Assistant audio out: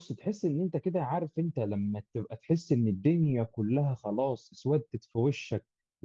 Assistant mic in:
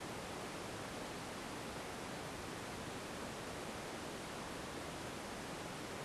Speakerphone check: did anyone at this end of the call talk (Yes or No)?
No